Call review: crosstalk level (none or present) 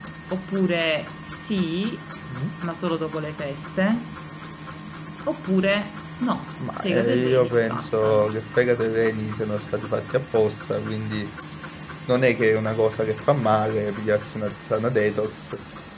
present